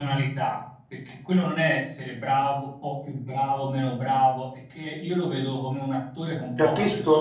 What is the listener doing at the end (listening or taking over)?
taking over